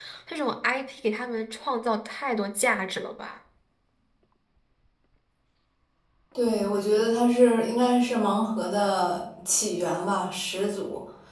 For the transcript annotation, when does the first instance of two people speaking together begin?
none

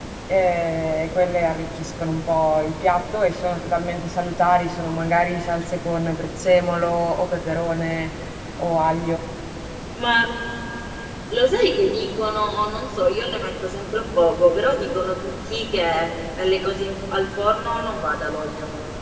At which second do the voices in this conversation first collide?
none

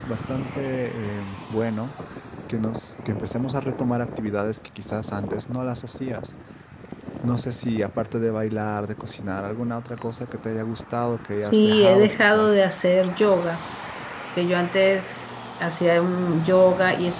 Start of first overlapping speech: 11.4 s

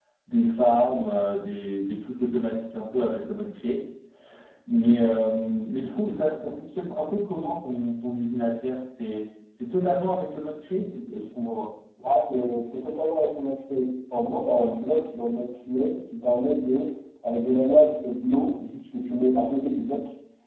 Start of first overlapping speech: none

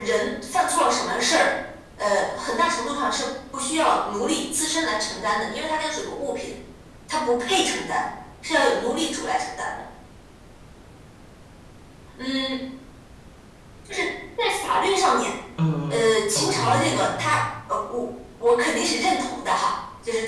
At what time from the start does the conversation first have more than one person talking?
15.9 s

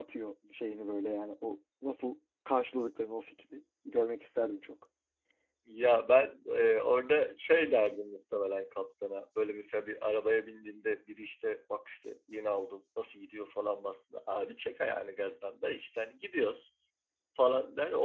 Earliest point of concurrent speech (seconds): none

